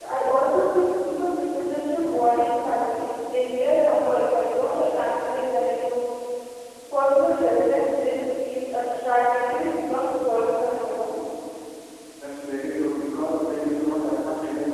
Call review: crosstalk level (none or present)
none